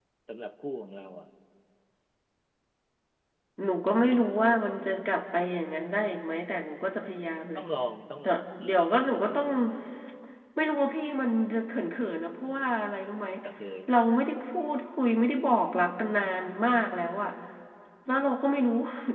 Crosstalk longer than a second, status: none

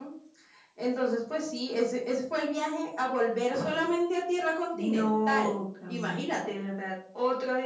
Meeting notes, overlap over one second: present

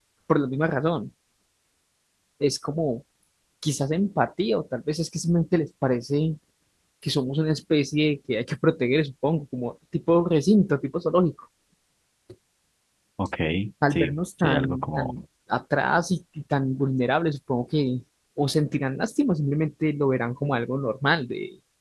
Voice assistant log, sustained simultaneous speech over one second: present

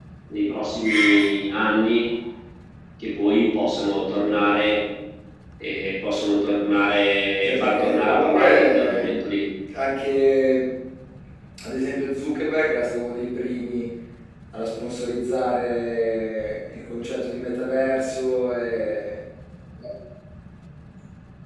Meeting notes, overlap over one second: present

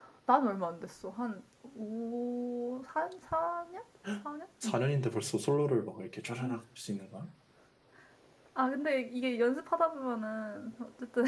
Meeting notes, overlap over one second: none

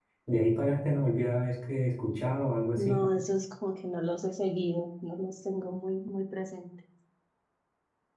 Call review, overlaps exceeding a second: none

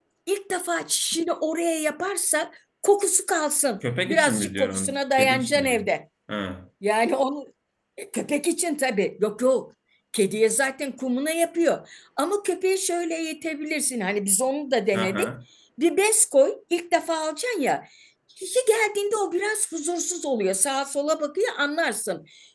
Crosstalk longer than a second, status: present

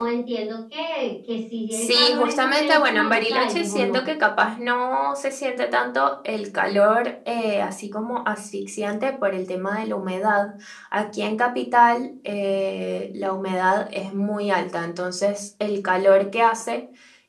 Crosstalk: present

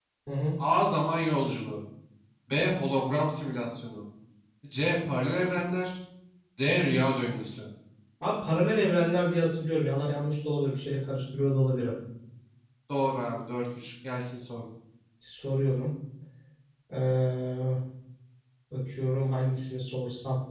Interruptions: none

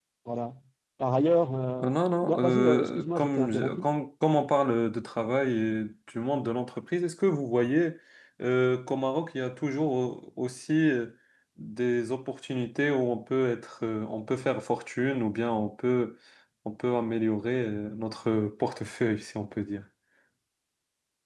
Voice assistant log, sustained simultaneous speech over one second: present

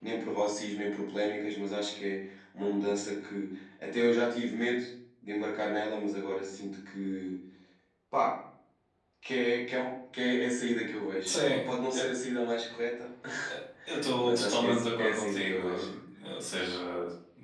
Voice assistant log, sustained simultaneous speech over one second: present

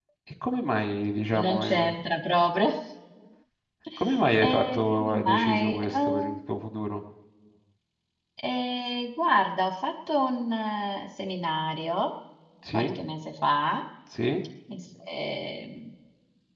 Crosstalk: present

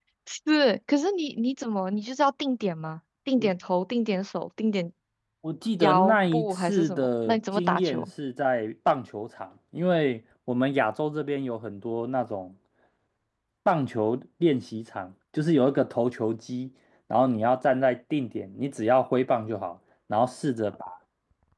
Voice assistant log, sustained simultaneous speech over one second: present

